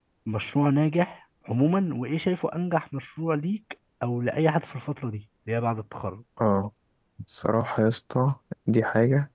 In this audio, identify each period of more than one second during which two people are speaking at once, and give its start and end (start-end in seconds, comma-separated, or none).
none